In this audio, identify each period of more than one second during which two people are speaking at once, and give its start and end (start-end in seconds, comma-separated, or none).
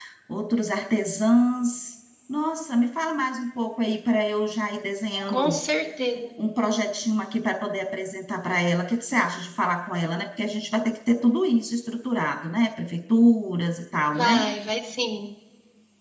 none